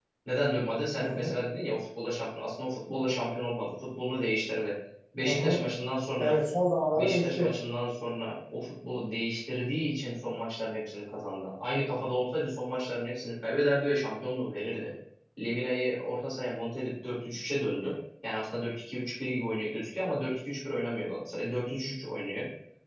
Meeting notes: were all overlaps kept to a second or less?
Yes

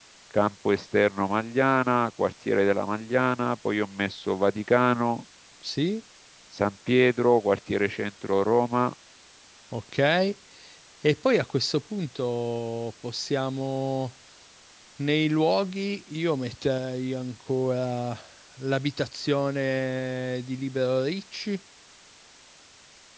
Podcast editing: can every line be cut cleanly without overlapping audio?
Yes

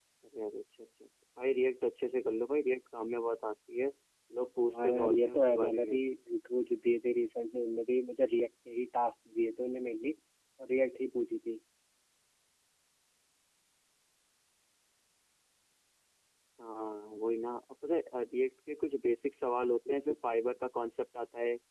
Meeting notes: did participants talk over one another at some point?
Yes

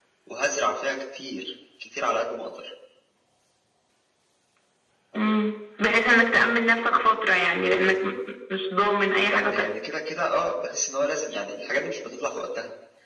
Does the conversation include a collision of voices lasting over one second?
No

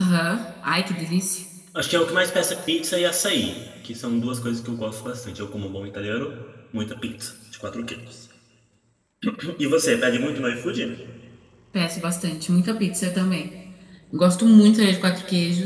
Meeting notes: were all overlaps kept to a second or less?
Yes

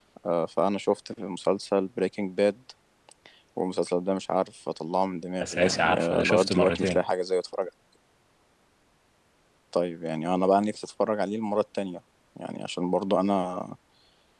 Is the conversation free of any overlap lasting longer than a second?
No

